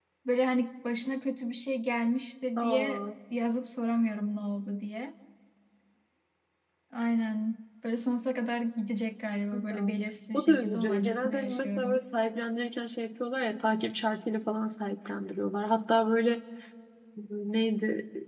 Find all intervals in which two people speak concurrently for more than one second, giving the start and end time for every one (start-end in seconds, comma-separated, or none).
10.3-12.0